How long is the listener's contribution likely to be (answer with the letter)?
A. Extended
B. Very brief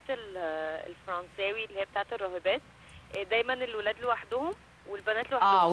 A